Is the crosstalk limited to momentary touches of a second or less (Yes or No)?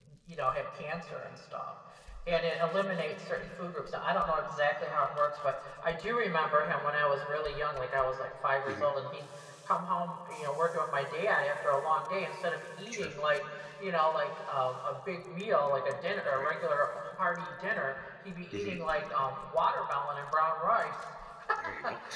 Yes